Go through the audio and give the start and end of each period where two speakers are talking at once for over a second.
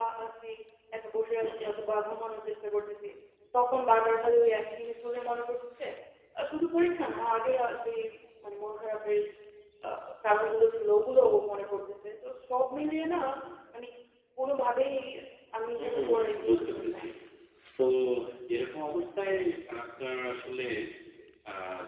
15.8-17.1

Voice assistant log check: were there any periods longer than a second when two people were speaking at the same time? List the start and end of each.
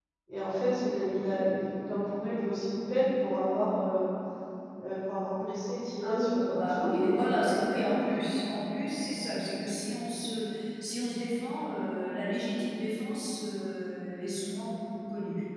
6.0-7.5

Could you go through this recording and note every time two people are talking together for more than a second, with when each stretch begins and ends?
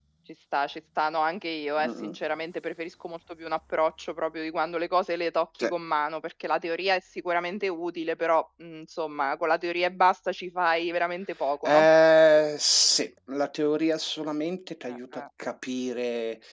none

